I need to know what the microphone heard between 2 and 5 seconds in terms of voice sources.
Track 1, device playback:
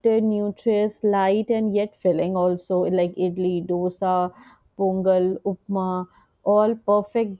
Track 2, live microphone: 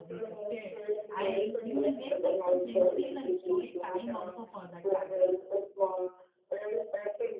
both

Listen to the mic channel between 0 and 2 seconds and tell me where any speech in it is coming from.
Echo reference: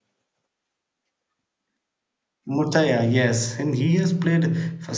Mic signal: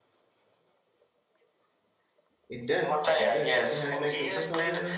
neither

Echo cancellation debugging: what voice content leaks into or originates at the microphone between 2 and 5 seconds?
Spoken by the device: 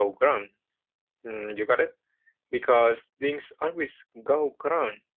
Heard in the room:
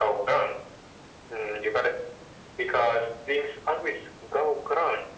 echo only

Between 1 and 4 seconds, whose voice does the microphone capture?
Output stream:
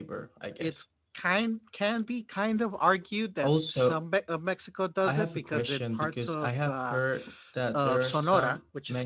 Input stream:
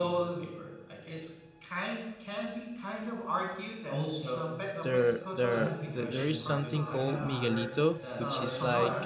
echo only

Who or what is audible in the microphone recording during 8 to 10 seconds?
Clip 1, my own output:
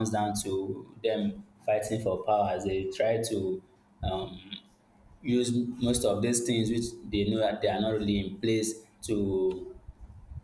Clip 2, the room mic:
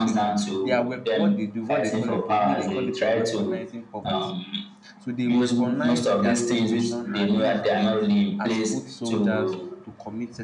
both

